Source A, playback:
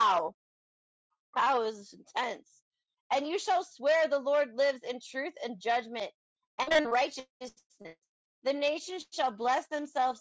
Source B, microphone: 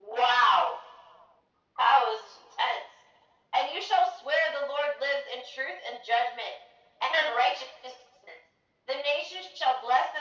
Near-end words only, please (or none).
none